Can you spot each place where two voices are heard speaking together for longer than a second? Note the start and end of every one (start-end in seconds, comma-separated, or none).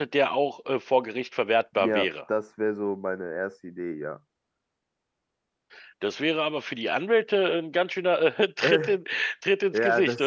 none